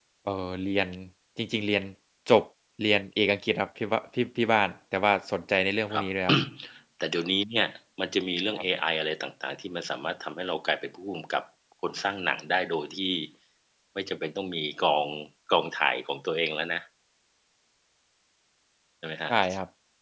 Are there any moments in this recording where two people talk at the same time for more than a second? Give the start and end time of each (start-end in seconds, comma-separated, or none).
none